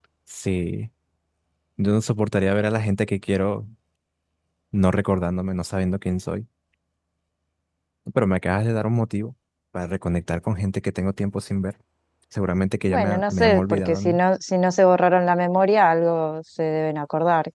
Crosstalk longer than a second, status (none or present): present